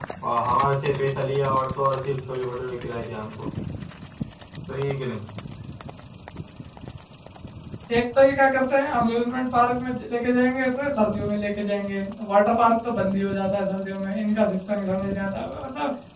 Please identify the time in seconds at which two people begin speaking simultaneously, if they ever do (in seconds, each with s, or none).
none